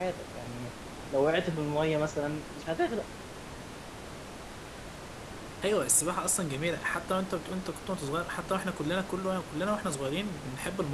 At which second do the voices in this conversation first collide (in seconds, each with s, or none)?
none